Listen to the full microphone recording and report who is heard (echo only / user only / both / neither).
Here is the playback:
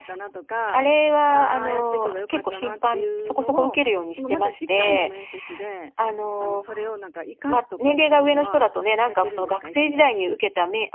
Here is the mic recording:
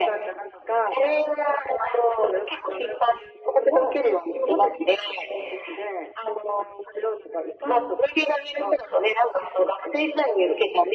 echo only